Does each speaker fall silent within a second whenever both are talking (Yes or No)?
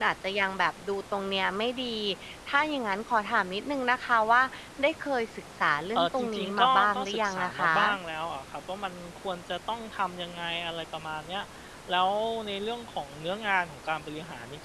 No